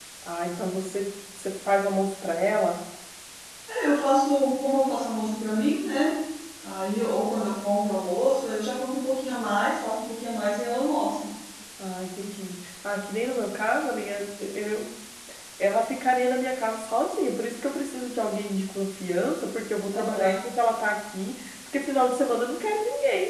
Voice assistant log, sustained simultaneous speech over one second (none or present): none